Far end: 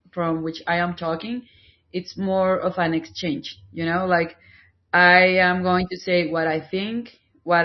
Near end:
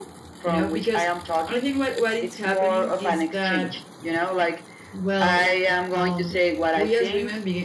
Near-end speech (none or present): present